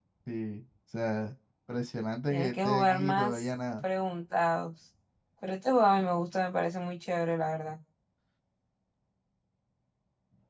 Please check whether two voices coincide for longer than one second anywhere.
Yes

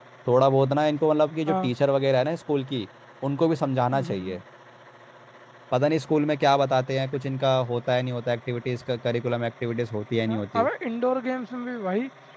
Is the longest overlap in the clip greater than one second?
No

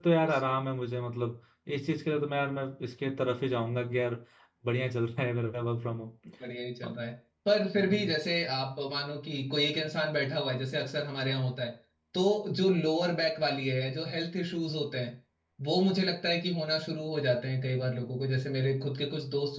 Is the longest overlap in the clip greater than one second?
No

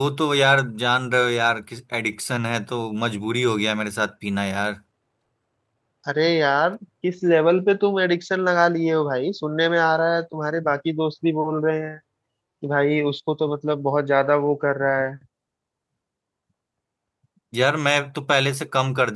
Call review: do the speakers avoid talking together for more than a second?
Yes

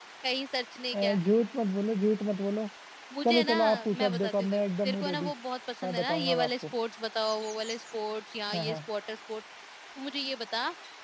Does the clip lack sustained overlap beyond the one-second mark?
No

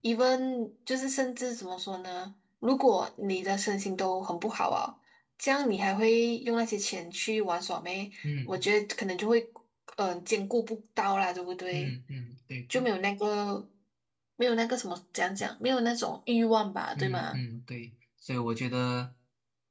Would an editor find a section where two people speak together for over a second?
No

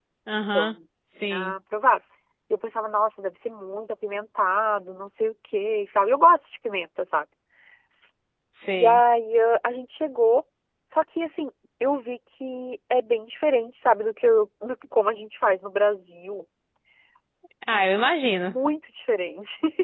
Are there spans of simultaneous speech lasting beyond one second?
No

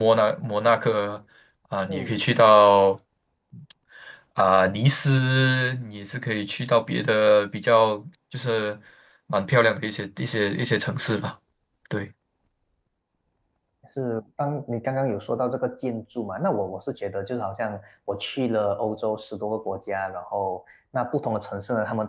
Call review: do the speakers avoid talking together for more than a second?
Yes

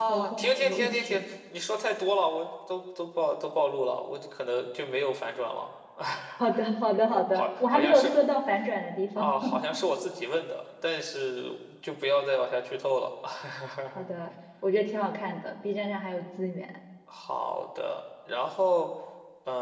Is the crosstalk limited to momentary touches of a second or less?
No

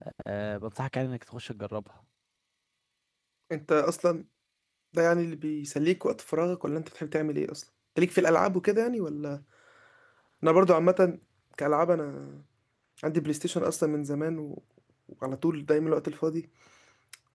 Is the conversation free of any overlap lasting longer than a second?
Yes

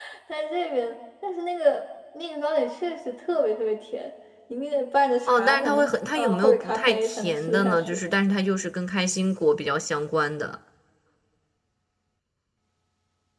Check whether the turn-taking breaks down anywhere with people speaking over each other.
Yes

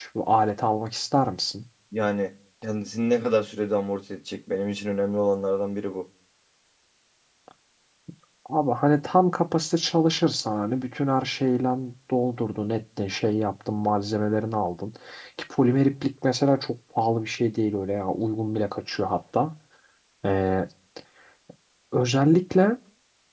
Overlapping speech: No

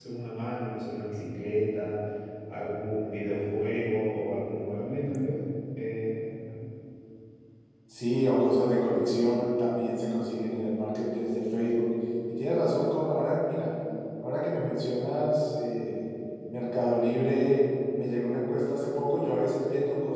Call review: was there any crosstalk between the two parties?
No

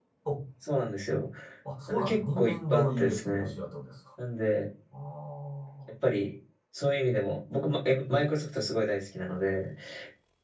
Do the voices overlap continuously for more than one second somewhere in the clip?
Yes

